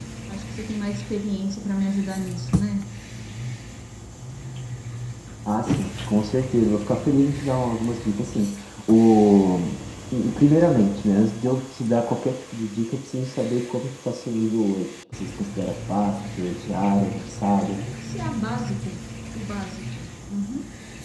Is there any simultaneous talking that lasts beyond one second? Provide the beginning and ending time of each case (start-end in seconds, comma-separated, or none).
none